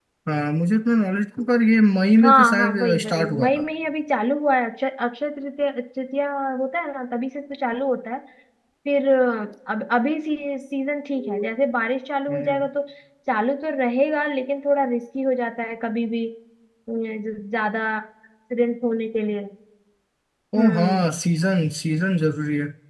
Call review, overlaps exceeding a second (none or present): present